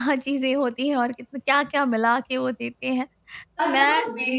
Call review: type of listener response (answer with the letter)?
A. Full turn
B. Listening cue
A